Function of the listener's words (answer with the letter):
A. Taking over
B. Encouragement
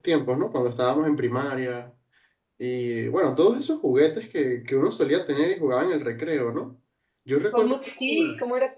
A